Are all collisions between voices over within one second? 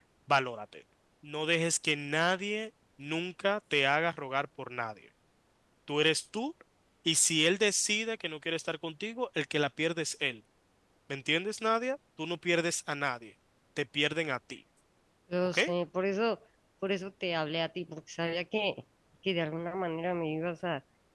Yes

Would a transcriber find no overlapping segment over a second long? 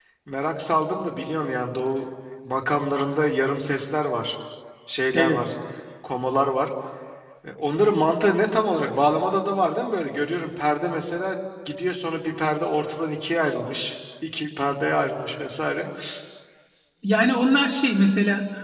Yes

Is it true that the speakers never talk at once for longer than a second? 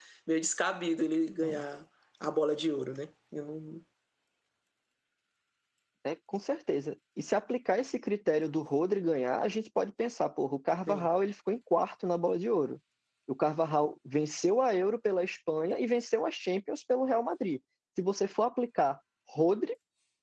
Yes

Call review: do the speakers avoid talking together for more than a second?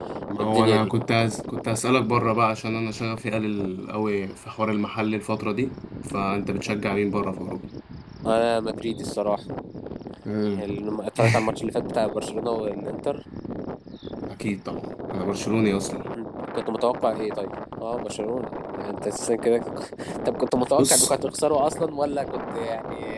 Yes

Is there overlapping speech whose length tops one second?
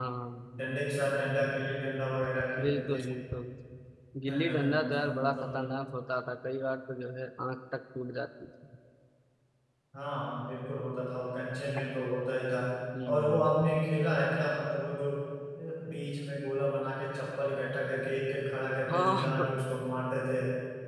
Yes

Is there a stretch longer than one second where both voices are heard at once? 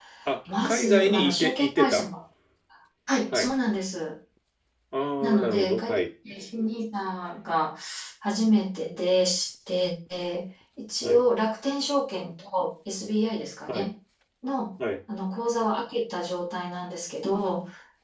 Yes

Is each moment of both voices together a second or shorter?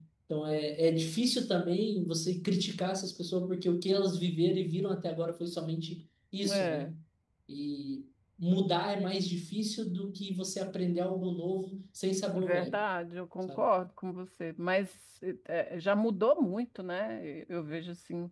Yes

